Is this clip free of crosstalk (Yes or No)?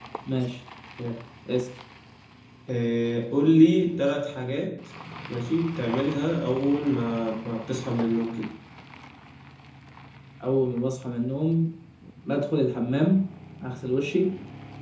Yes